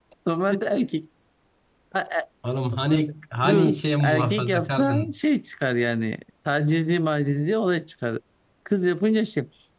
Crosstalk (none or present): present